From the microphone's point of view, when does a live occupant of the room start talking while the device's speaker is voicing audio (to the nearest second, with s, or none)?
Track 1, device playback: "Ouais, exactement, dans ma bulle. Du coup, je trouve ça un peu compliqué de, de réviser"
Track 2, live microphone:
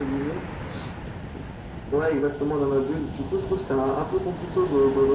none